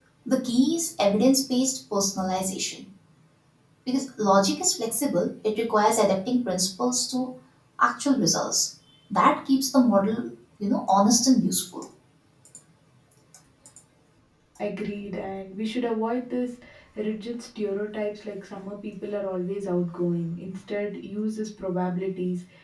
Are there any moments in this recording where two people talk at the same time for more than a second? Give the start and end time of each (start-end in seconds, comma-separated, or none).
none